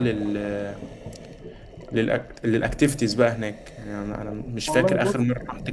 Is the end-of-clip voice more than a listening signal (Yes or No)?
No